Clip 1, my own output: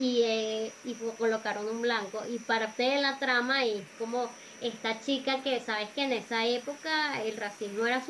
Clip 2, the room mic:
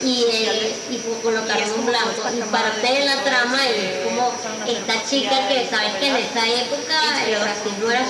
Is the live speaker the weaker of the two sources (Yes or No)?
Yes